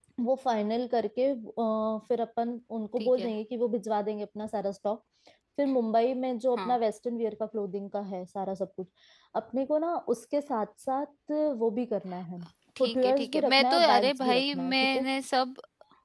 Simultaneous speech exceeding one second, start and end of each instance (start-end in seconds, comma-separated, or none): 12.8-15.1